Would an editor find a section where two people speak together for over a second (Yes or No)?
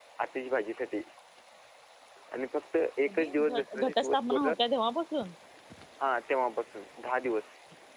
Yes